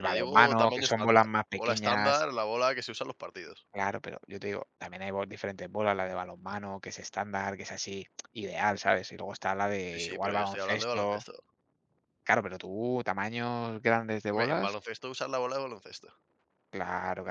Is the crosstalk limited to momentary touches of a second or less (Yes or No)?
No